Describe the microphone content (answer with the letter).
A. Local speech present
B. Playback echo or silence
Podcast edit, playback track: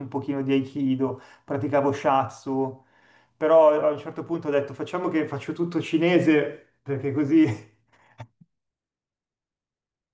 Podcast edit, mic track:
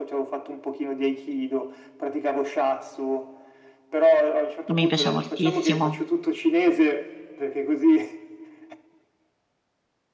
A